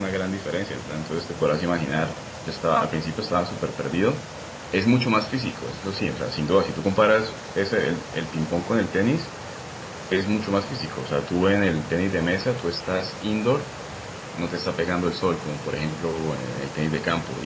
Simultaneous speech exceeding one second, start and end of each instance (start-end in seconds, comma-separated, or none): none